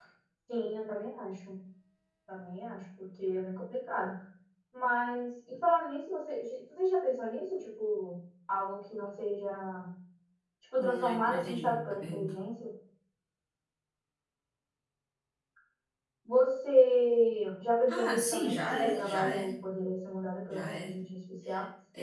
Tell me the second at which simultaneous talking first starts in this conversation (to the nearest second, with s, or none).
11 s